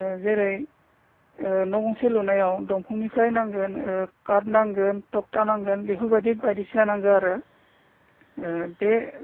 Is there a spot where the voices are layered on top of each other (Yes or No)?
No